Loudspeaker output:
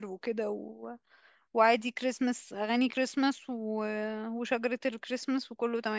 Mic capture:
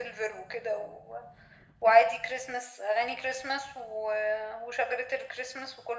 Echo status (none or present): present